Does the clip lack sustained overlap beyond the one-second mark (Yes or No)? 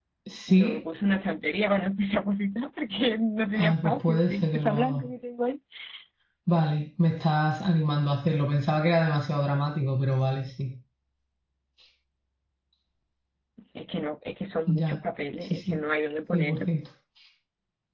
No